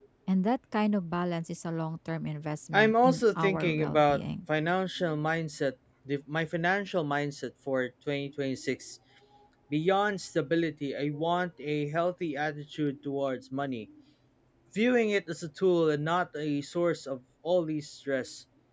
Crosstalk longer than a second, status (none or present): present